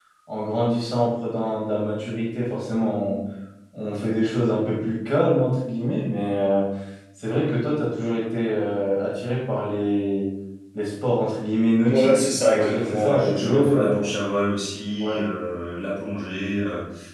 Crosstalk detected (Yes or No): Yes